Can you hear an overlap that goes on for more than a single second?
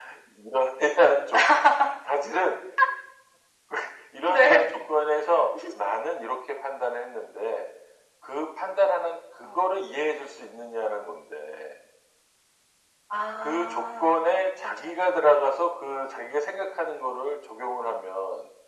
Yes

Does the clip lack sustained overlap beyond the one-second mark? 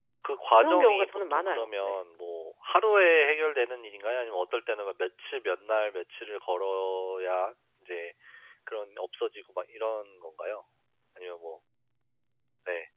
No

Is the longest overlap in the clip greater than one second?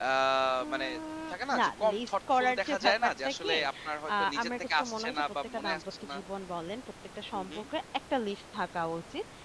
Yes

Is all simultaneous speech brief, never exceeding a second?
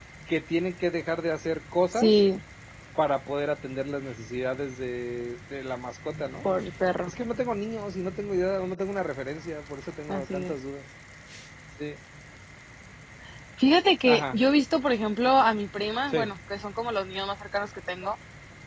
Yes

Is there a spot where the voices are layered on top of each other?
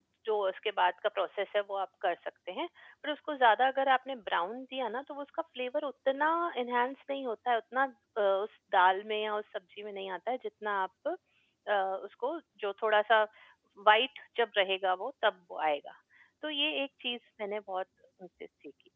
No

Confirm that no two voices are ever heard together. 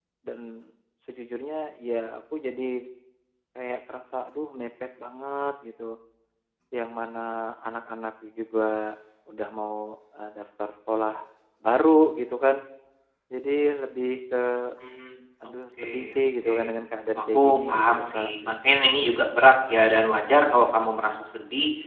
No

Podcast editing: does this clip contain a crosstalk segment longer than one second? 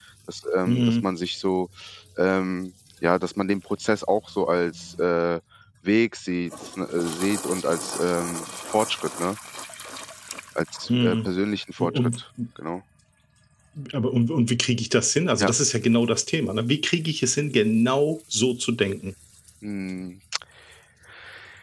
No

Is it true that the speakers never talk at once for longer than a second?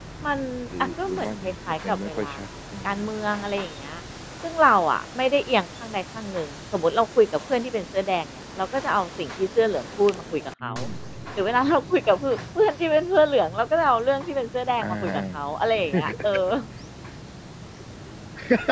No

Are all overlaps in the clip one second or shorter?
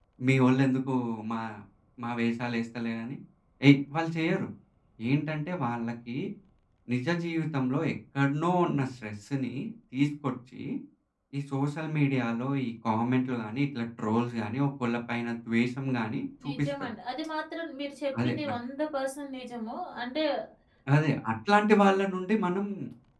Yes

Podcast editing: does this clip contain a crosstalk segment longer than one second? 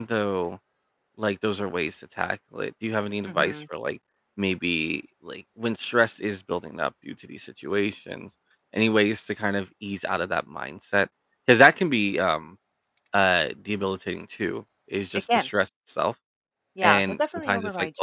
Yes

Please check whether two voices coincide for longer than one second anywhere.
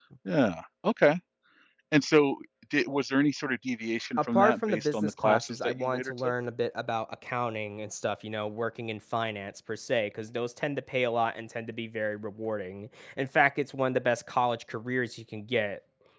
Yes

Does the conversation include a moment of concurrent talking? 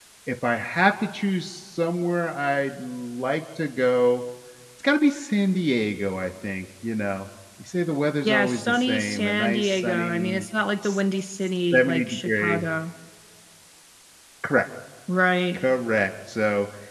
Yes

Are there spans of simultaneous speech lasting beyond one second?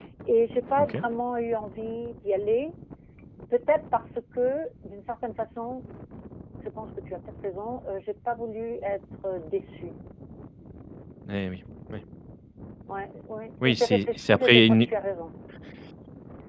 Yes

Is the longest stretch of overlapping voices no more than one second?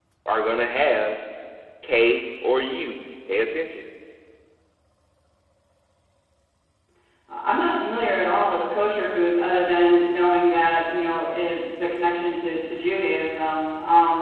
Yes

